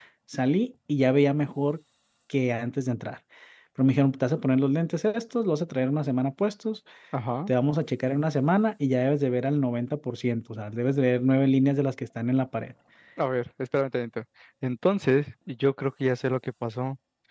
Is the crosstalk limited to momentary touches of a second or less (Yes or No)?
Yes